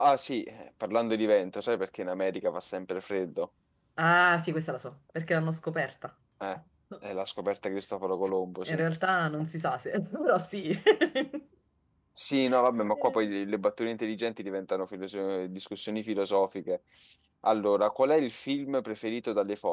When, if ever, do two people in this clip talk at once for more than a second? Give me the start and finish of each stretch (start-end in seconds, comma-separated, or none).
none